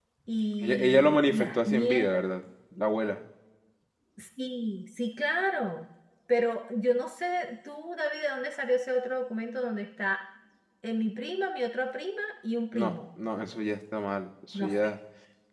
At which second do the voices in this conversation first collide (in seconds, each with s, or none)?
0.6 s